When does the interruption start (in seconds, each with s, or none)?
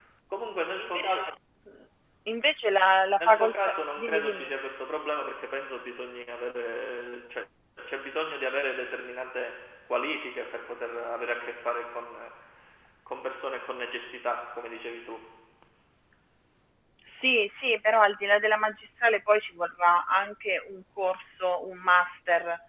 3.2 s